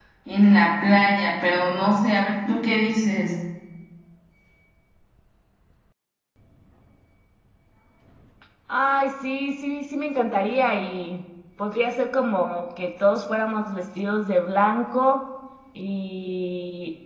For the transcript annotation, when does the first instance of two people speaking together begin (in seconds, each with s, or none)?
none